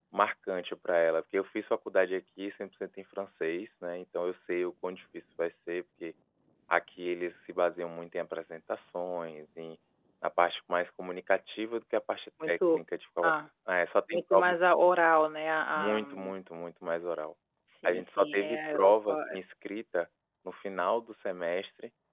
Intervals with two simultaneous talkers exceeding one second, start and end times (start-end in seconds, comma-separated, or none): 17.9-19.4